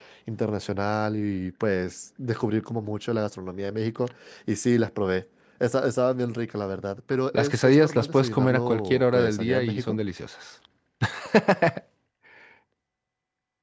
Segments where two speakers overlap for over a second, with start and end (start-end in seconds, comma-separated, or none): 7.3-10.0